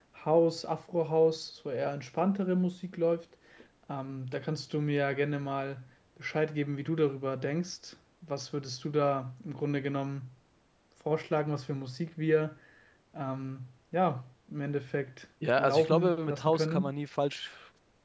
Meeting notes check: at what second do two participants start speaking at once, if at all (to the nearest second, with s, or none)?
15 s